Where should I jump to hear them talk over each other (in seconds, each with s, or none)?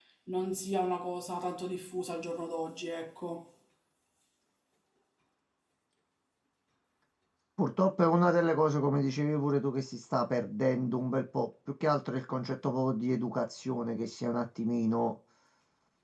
none